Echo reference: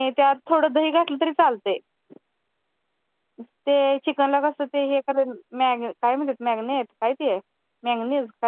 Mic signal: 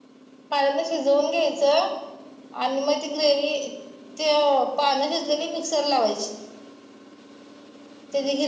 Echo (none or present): none